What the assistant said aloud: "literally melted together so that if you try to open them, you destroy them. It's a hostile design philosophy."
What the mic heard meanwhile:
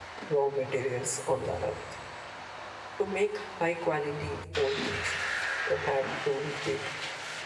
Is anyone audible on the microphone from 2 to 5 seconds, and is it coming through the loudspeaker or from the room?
user only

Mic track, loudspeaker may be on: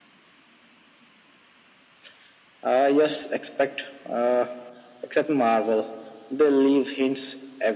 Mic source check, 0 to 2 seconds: neither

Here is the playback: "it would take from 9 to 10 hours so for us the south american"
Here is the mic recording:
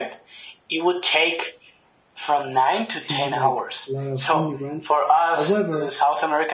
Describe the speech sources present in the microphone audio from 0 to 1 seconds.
echo only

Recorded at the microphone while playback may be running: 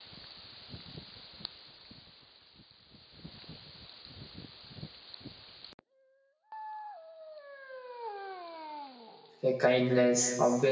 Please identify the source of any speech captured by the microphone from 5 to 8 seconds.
neither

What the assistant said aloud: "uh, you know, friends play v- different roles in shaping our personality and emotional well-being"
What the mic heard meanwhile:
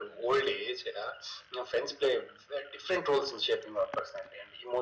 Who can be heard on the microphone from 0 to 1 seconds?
echo only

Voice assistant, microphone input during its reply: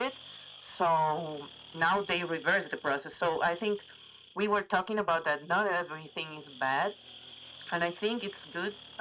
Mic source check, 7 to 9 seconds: echo only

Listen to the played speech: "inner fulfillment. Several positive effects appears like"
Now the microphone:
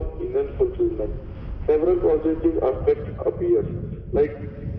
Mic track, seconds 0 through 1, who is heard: echo only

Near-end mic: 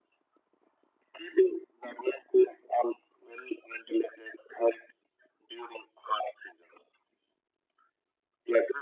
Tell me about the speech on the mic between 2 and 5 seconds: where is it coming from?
echo only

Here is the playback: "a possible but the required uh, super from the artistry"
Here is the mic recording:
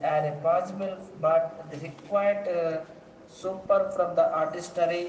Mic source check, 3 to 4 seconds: echo only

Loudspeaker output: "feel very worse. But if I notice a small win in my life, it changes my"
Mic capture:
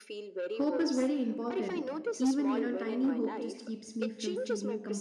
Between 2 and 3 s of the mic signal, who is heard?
both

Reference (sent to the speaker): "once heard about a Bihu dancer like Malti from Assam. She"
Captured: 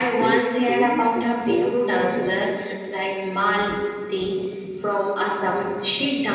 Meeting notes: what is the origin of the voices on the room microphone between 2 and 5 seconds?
both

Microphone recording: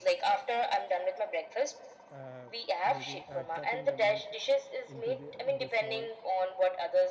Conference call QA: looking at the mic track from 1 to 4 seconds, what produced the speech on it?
both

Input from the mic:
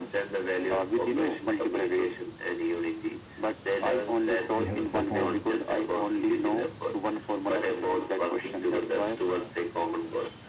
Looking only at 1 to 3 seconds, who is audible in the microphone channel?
echo only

